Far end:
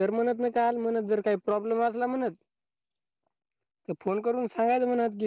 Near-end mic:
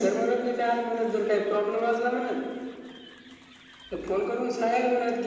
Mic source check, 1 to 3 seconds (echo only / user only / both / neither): echo only